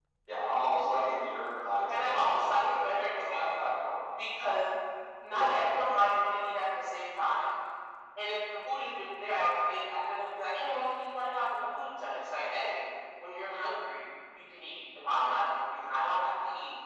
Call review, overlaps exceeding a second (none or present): present